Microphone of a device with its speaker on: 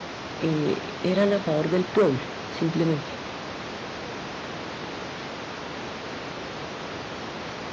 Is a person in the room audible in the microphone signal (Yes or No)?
Yes